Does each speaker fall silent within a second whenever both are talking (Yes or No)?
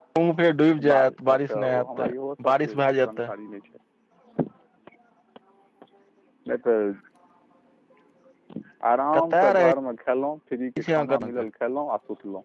No